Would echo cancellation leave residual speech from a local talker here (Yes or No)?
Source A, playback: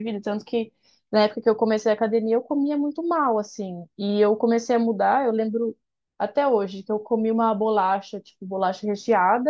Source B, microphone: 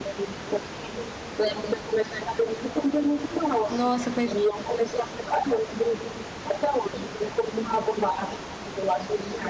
Yes